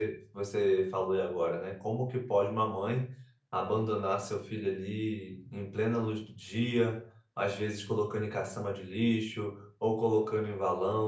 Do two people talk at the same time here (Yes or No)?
No